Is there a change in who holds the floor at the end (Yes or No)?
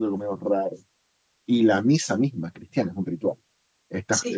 No